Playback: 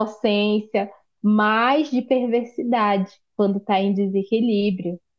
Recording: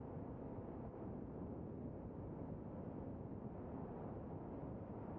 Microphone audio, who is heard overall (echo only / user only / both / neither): neither